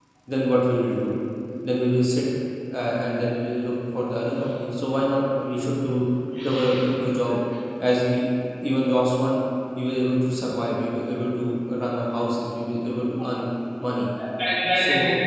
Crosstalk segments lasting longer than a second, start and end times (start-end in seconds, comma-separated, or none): none